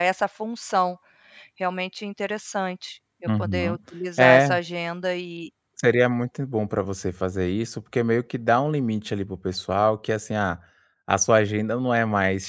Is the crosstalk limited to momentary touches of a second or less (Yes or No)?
Yes